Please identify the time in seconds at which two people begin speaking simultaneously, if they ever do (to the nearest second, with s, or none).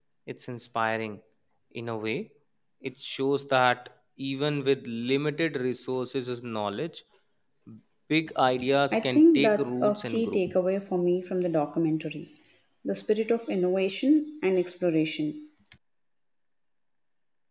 9 s